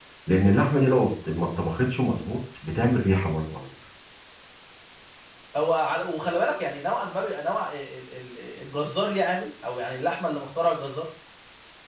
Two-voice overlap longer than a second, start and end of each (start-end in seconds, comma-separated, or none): none